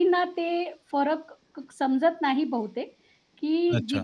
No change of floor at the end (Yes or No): Yes